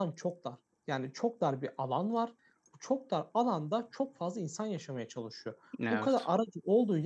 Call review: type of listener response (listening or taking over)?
listening